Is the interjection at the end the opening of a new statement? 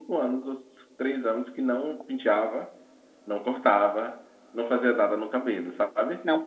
No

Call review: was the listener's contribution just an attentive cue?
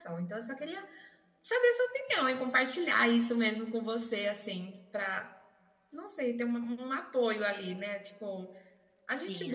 Yes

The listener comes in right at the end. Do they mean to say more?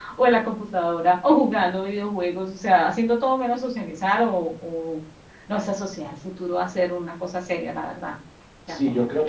Yes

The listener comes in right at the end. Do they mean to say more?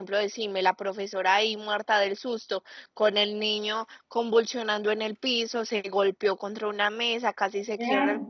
No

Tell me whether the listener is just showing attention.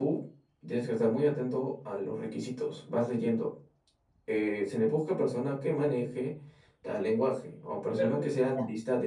Yes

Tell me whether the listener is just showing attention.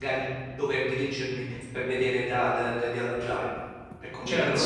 No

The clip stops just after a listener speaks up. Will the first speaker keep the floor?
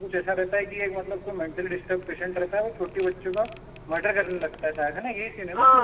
No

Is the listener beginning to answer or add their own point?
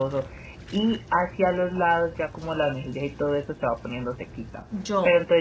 No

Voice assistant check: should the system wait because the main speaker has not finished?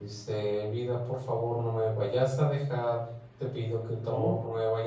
Yes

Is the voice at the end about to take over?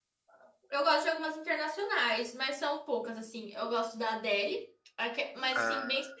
No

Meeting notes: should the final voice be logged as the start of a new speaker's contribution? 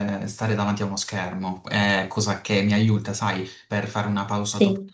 No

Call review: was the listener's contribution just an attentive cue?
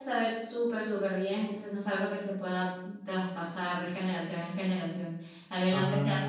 Yes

